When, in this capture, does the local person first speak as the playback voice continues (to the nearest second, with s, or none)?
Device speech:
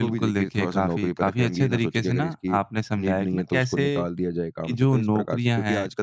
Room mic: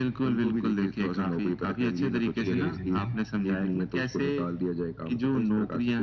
2 s